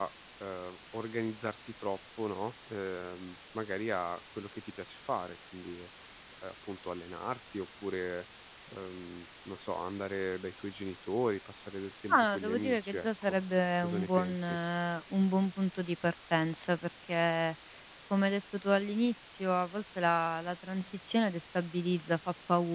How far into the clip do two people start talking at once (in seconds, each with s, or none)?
12.1 s